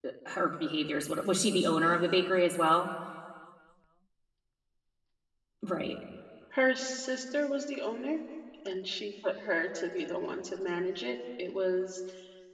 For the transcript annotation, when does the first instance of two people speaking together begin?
none

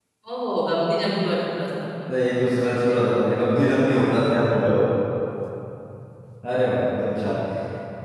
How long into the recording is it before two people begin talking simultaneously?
none

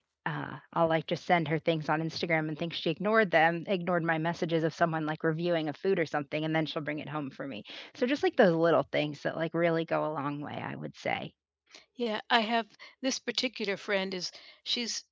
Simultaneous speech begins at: none

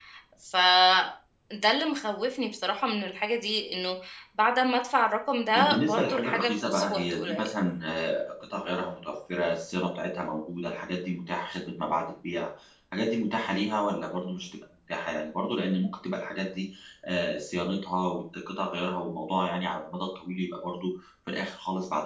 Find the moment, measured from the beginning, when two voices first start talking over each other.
6 s

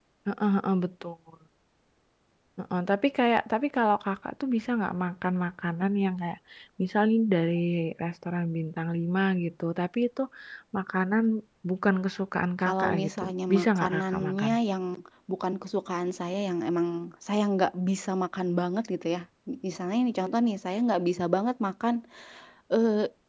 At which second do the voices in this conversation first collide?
13 s

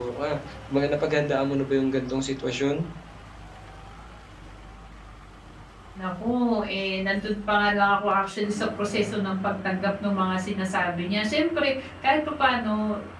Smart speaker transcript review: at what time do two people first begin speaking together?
none

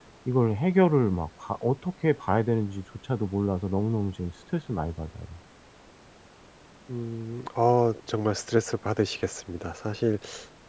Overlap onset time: none

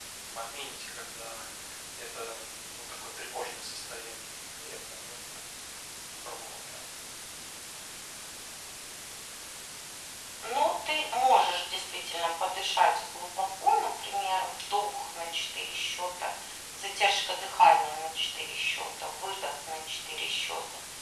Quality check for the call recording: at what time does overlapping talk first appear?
none

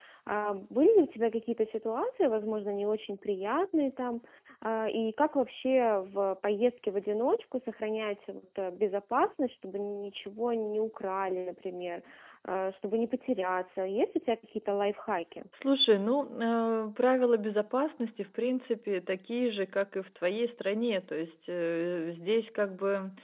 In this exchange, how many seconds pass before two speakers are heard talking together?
none

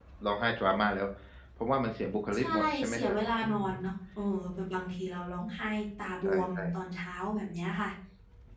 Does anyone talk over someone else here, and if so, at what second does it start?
2 s

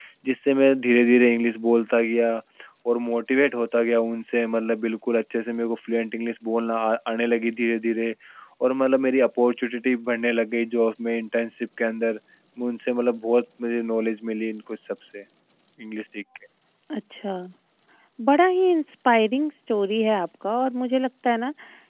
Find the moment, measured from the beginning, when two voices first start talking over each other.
none

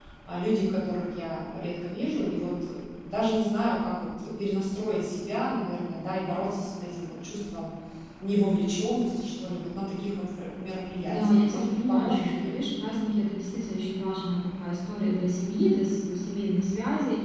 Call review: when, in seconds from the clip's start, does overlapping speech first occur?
11 s

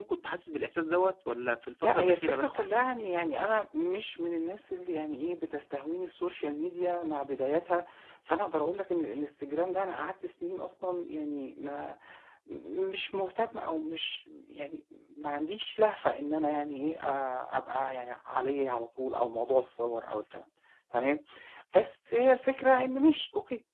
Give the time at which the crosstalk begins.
2 s

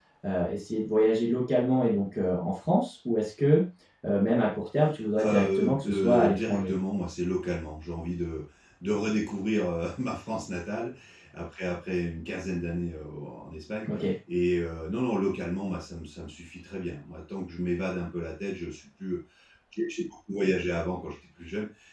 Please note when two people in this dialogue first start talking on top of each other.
5 s

